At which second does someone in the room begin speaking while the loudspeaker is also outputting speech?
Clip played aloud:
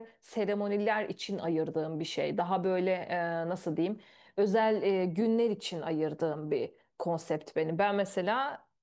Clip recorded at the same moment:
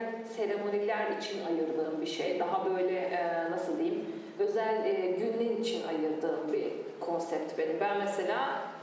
none

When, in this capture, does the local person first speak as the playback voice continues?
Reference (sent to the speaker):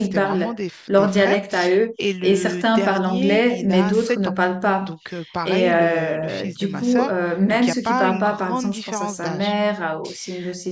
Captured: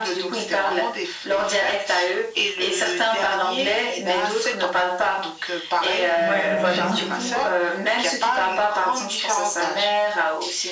6.2 s

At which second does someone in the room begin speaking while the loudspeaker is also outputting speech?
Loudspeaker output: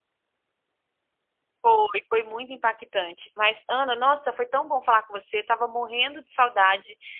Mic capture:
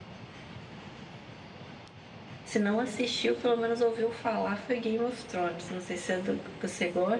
2.4 s

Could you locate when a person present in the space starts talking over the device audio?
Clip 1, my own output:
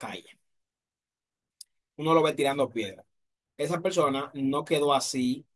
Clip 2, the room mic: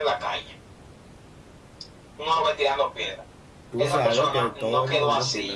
3.7 s

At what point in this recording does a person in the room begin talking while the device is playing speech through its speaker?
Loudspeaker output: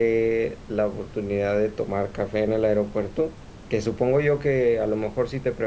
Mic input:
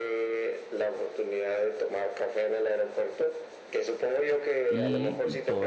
4.7 s

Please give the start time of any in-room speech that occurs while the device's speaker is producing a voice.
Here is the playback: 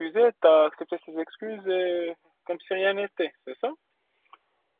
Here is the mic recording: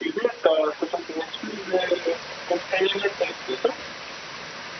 none

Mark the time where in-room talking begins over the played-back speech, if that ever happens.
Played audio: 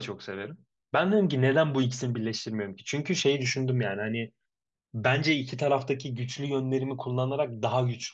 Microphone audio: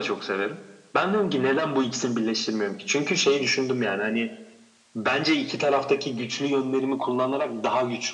none

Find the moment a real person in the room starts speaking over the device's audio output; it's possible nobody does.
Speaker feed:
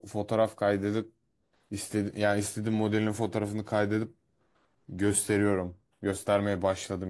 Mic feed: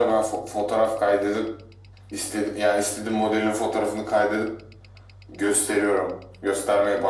none

